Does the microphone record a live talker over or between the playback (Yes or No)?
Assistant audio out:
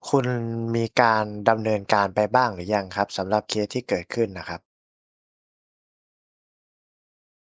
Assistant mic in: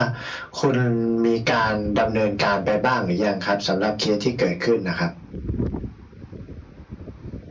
No